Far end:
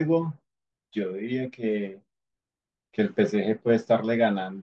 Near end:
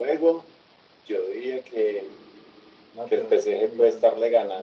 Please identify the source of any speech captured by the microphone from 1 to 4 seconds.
both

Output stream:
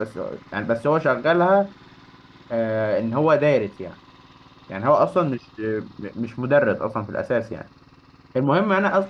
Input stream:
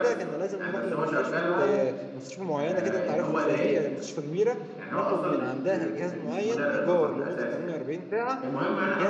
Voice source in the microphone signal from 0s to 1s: both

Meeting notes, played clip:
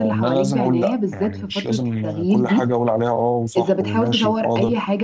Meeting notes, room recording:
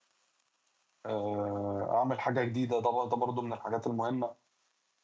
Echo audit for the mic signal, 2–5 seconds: user only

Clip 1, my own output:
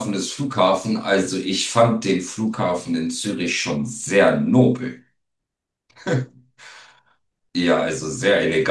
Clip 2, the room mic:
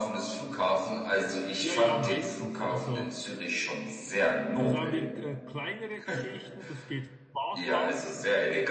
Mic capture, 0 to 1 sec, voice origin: echo only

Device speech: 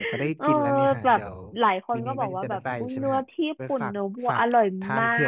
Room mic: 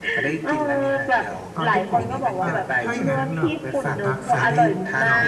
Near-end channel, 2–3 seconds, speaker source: both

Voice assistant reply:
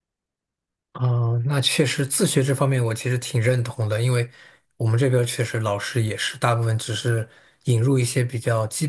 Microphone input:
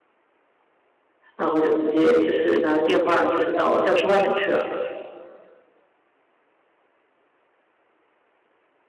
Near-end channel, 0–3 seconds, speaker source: user only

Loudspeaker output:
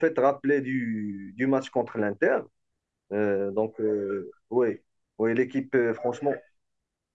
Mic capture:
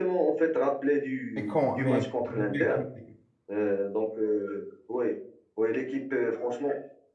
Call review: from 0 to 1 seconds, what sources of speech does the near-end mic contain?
echo only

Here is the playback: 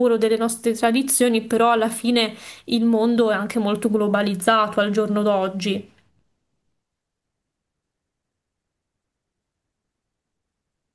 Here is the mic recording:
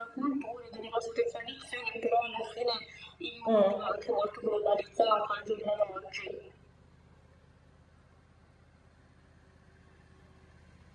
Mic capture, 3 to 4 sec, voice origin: both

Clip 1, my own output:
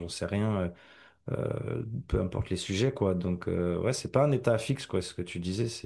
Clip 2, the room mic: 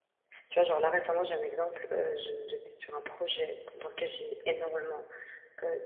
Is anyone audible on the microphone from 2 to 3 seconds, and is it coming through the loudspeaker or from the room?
user only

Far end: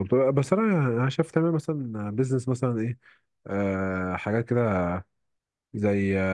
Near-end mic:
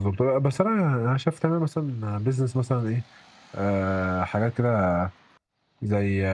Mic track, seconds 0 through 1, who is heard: echo only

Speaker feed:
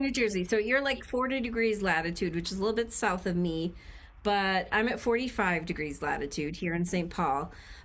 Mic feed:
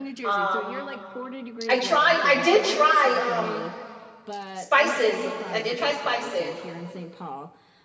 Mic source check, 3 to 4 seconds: both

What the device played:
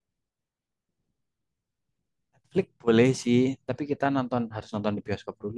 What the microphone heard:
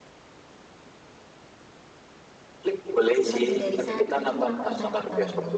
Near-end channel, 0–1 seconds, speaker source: neither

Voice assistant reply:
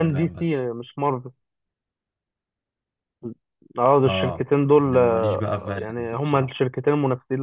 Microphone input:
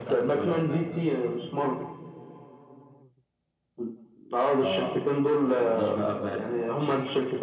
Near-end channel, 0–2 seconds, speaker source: echo only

